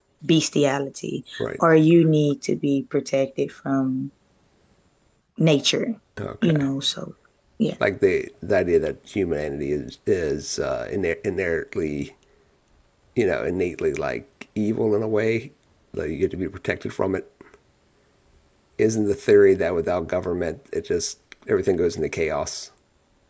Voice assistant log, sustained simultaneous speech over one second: none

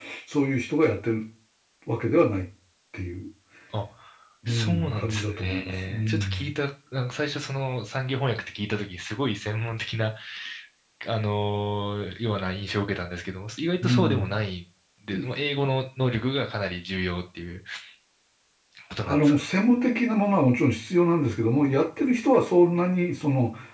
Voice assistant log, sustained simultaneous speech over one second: present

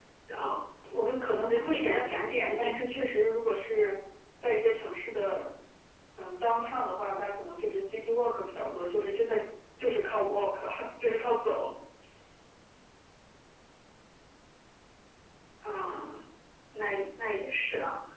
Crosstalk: present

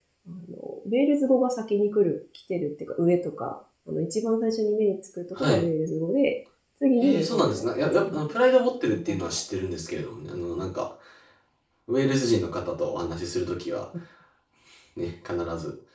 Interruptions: present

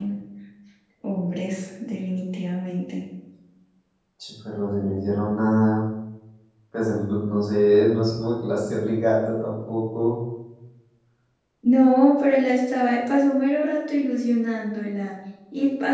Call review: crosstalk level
none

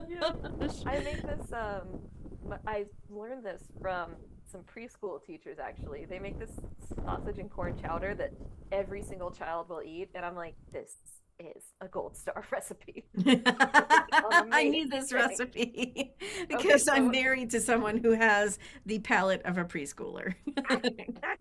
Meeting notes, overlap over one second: present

